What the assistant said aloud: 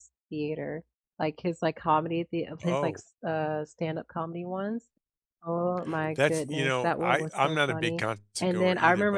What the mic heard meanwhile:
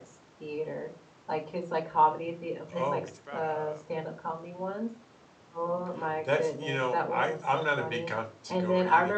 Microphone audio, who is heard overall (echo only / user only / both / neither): both